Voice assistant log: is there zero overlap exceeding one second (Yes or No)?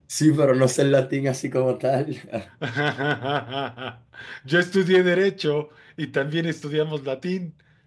Yes